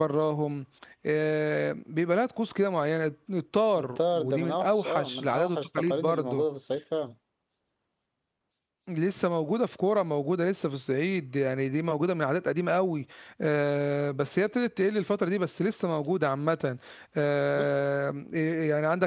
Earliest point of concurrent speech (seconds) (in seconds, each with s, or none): 3.8 s